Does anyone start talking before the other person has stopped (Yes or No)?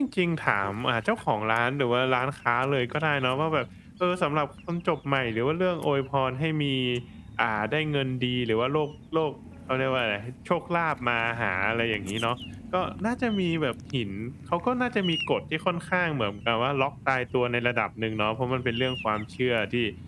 No